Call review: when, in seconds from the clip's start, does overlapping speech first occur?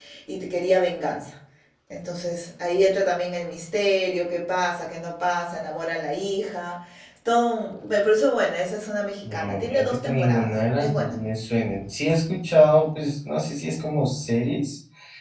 9.2 s

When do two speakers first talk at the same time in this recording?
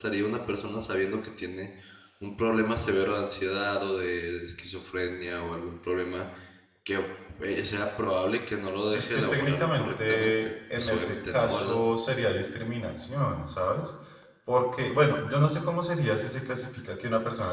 8.9 s

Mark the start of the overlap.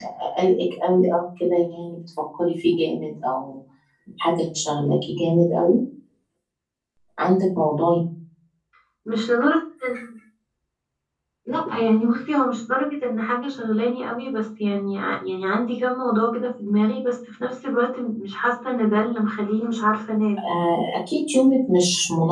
none

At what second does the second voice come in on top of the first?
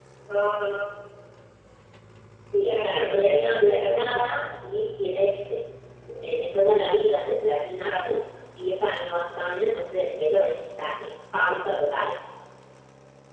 2.7 s

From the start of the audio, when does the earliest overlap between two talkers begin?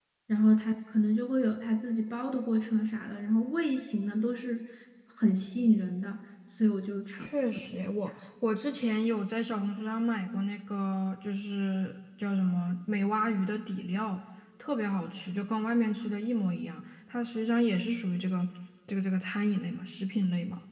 none

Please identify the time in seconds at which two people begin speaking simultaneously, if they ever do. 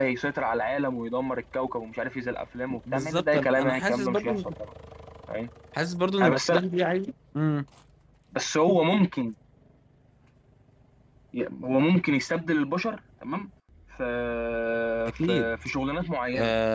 2.9 s

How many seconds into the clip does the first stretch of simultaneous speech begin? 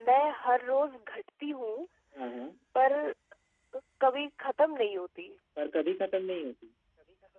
none

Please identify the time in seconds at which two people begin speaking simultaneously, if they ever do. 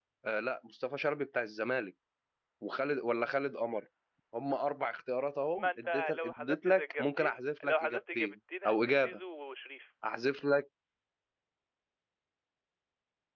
5.5 s

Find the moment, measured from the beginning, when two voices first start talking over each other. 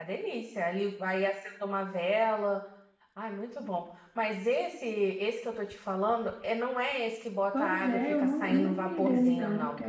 7.5 s

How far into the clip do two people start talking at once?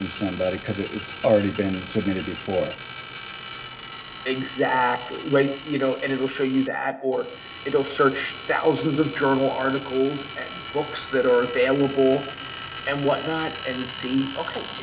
none

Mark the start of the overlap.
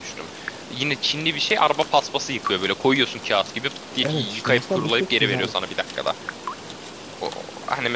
4.0 s

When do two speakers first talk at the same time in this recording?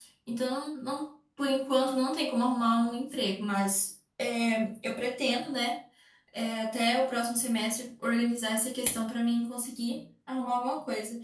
none

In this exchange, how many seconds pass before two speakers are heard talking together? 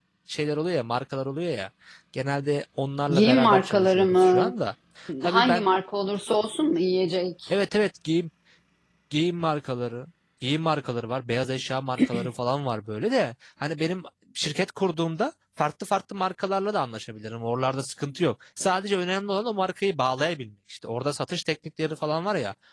3.1 s

